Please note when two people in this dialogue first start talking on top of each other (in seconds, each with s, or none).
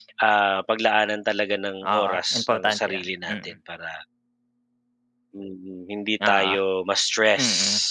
1.8 s